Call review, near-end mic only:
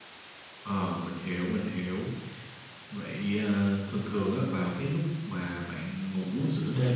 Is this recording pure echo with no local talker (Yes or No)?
Yes